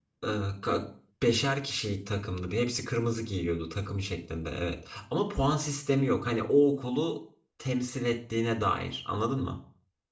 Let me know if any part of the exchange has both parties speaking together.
No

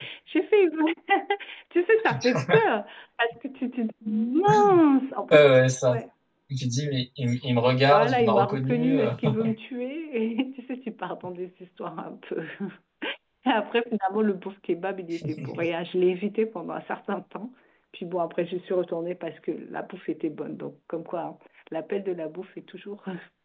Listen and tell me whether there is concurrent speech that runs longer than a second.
Yes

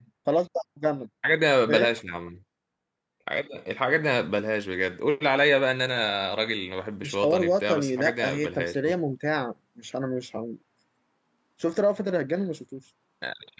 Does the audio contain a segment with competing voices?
Yes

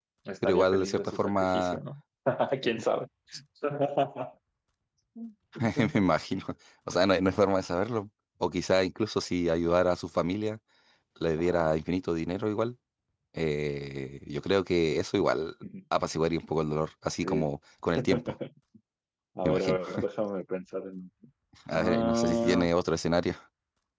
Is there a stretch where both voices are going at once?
Yes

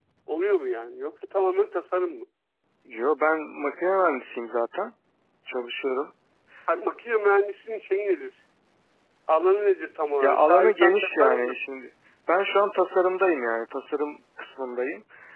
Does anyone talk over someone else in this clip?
Yes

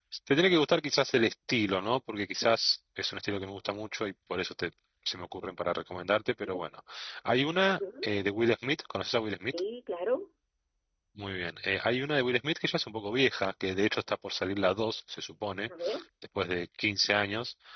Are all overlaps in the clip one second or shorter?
Yes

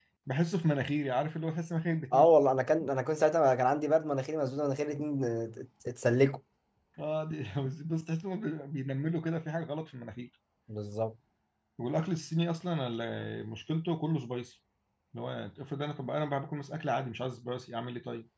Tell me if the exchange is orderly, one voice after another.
Yes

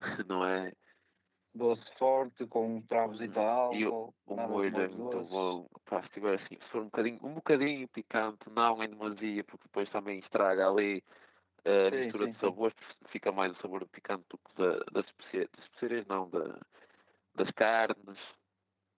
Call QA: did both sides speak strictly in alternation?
No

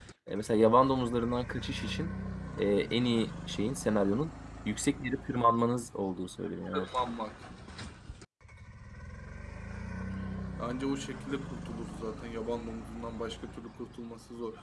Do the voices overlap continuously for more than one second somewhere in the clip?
No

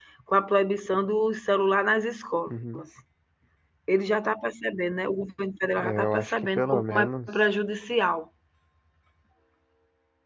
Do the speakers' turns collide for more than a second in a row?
Yes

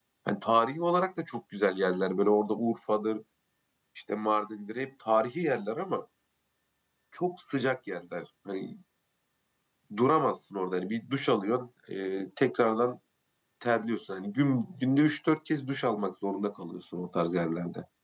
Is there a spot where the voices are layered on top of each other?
No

